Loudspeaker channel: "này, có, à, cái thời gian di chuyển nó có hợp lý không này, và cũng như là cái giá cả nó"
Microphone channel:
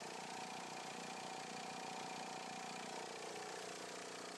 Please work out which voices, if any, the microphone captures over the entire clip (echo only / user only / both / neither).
neither